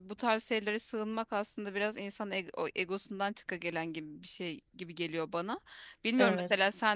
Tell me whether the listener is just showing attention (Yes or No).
Yes